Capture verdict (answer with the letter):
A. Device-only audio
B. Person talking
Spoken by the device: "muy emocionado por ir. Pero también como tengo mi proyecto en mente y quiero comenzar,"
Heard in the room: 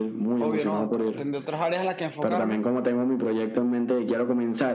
B